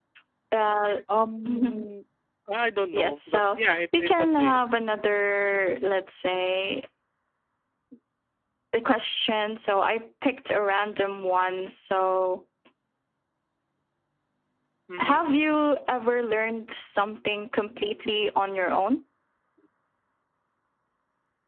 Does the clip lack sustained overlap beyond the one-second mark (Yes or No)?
No